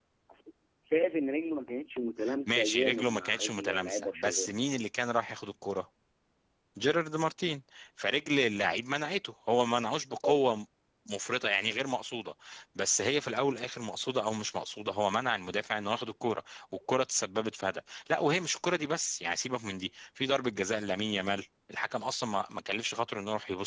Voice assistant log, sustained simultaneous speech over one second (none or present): present